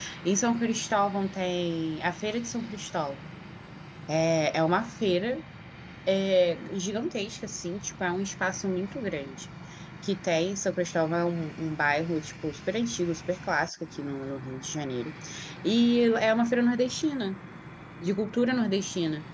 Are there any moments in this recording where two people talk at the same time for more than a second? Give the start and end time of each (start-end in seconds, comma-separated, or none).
none